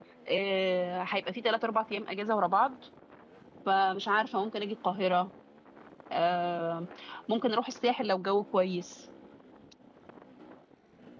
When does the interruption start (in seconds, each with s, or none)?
none